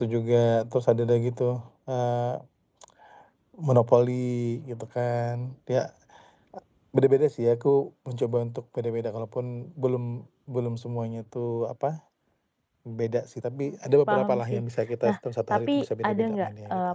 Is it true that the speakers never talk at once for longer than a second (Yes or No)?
No